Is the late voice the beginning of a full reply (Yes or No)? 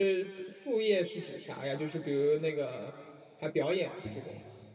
Yes